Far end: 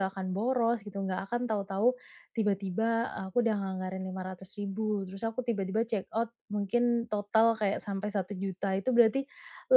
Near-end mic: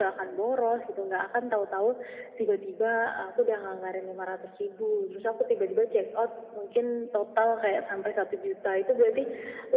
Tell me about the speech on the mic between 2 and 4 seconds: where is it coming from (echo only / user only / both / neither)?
echo only